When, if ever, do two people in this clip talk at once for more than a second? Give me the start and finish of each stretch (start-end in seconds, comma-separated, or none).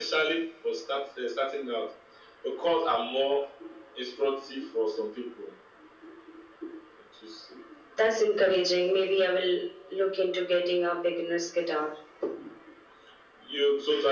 none